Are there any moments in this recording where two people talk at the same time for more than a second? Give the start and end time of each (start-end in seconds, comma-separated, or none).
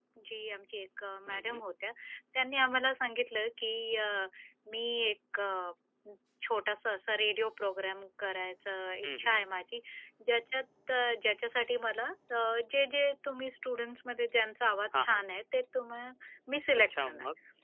none